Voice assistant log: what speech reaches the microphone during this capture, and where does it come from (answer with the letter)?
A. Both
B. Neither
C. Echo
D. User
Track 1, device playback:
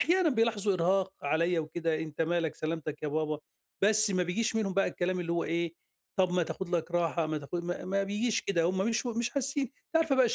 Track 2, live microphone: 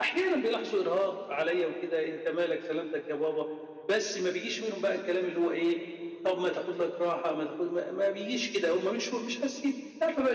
C